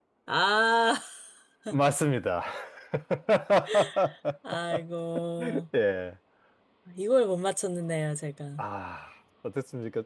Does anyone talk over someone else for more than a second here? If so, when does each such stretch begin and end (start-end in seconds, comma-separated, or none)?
none